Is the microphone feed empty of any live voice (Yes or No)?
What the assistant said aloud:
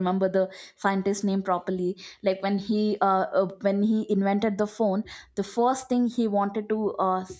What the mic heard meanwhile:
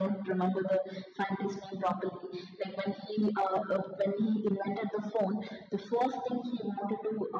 Yes